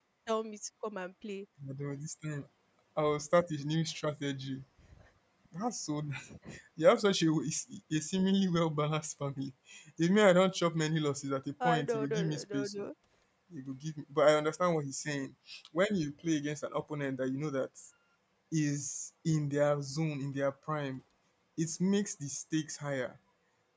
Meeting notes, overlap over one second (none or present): present